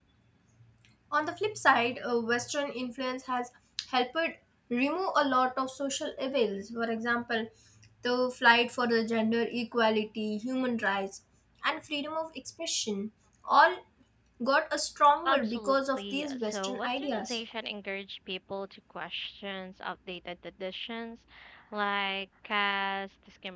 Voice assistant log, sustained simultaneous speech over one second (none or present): present